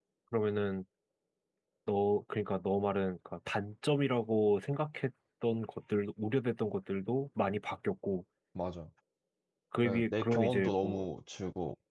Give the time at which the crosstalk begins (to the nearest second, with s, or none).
10 s